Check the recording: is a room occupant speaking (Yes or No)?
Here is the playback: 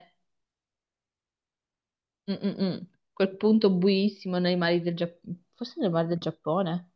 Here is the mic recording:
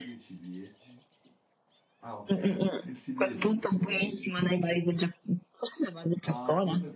Yes